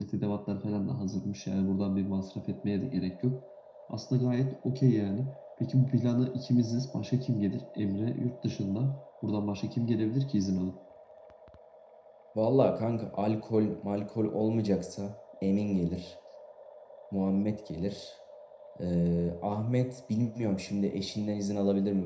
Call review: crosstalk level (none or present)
none